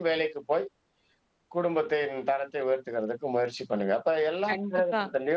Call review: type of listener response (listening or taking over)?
taking over